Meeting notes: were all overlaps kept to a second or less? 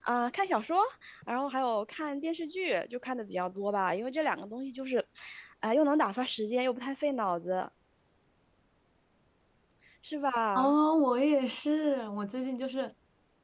Yes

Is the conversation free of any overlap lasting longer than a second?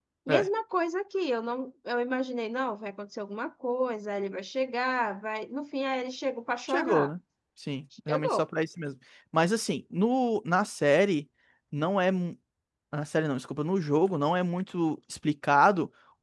Yes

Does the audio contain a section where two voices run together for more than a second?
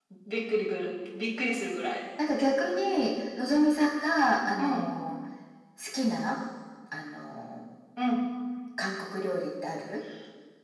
No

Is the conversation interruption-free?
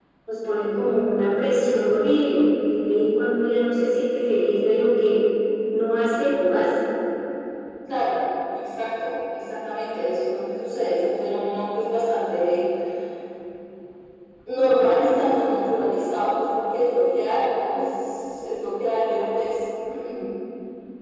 Yes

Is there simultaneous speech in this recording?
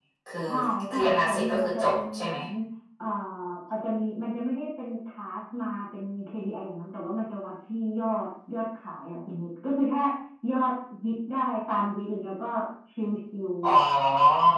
Yes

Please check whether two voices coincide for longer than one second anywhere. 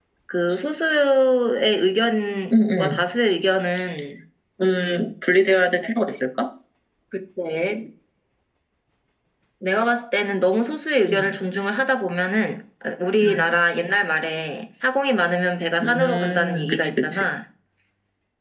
Yes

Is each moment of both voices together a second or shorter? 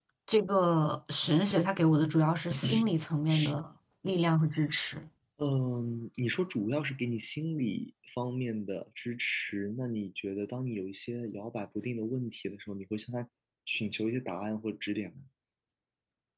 Yes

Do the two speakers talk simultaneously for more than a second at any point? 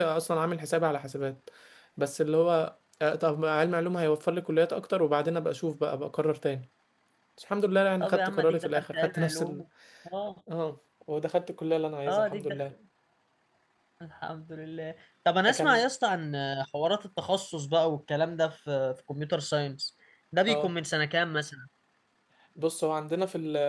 Yes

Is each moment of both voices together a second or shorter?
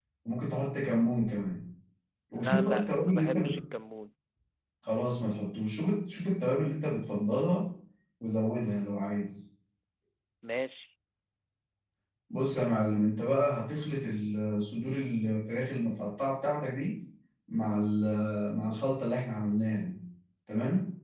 No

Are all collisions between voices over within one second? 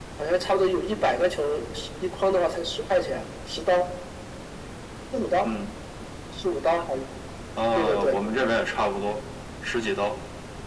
Yes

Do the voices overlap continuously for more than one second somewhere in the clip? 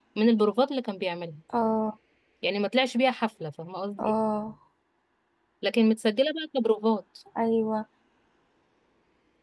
No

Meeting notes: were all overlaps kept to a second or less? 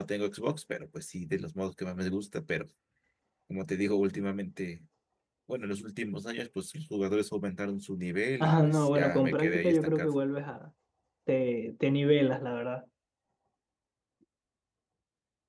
No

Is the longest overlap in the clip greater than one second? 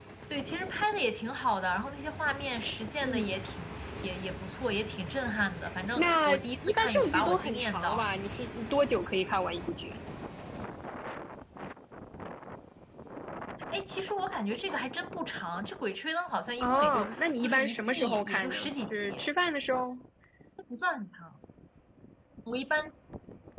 Yes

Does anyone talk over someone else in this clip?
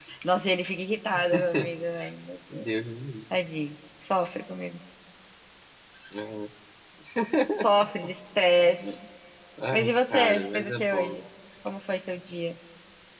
Yes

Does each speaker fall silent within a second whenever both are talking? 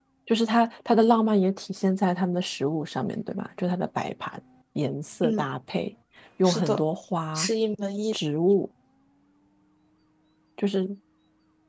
Yes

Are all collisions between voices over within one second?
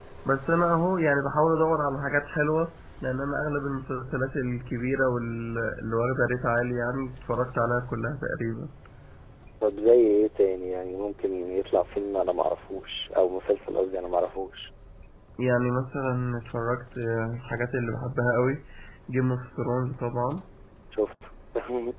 Yes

